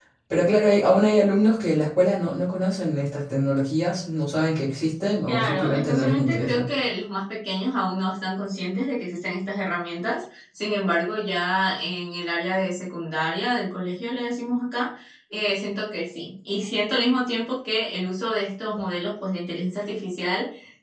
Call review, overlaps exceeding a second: present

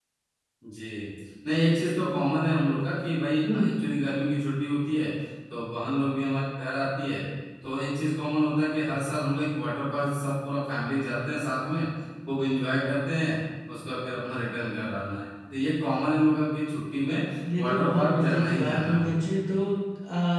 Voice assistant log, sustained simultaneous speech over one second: present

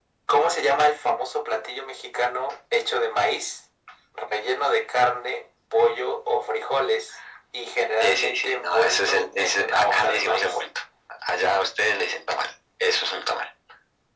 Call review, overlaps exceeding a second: present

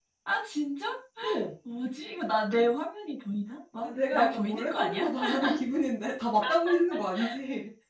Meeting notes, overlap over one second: present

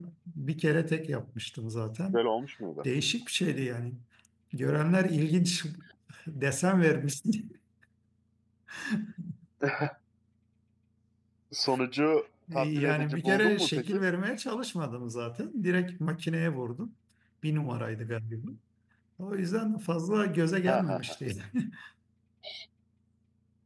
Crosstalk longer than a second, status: present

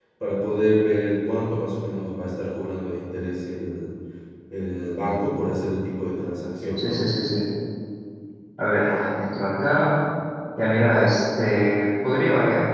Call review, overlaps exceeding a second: none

